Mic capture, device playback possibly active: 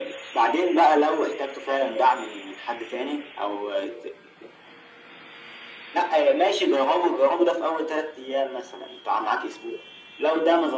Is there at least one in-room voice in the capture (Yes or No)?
No